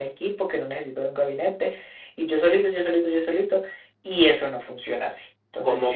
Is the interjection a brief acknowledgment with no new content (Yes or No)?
No